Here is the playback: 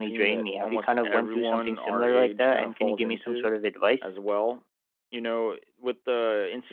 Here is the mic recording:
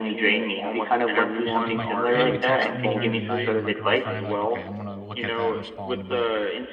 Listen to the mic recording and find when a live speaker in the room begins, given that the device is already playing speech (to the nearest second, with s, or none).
1 s